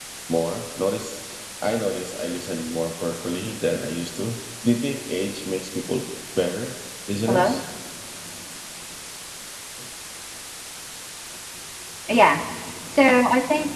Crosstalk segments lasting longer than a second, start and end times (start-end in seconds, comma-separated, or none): none